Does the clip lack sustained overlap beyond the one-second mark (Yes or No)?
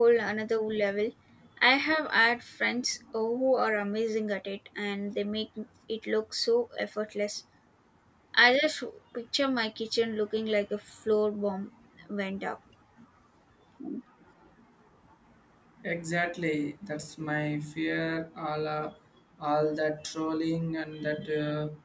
Yes